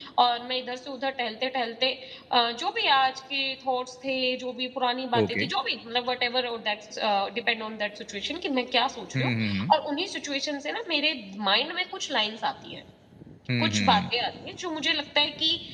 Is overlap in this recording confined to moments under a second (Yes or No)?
Yes